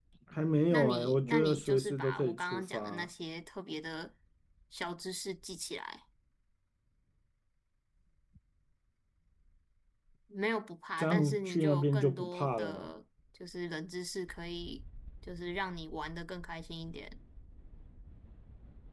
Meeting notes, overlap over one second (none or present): present